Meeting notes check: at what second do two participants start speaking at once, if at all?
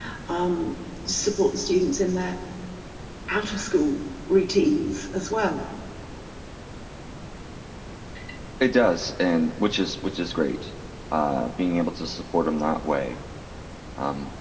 none

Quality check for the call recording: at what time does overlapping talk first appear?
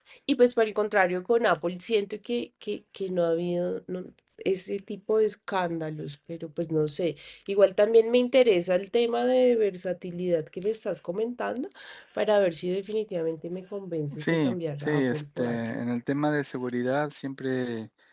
14.1 s

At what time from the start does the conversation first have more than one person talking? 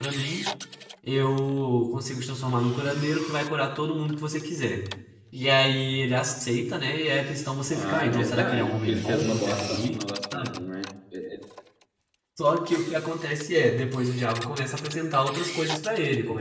7.7 s

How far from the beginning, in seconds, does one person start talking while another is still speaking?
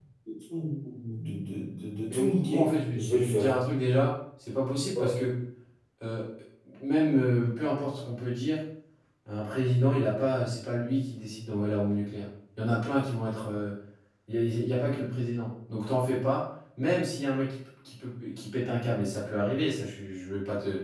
2.1 s

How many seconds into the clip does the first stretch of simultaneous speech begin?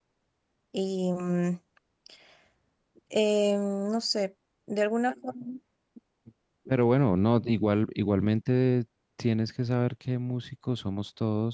none

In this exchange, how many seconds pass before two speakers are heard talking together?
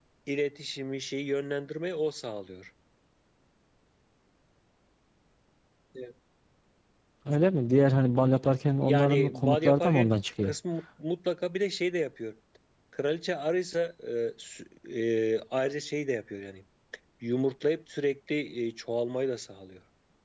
8.8 s

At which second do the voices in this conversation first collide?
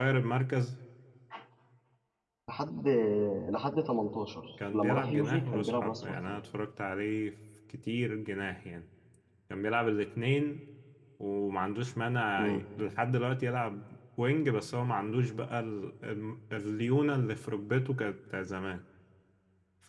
4.6 s

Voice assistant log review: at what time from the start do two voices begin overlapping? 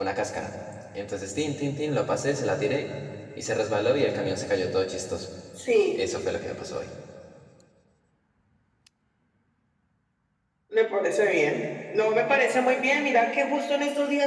none

